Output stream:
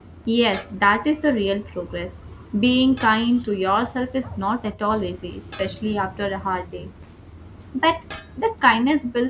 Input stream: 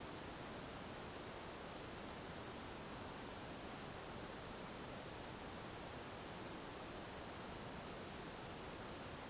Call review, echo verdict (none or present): none